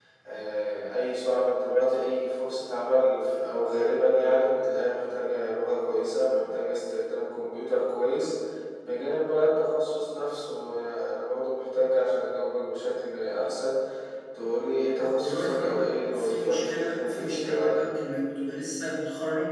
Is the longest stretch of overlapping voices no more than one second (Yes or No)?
No